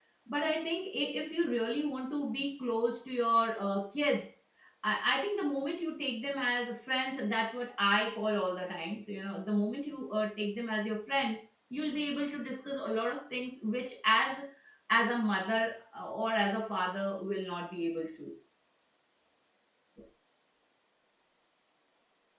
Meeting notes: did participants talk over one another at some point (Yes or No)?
No